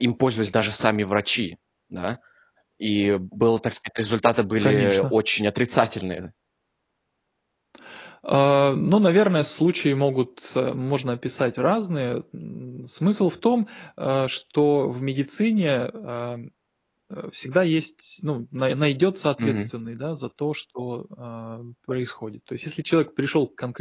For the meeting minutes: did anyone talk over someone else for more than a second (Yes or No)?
No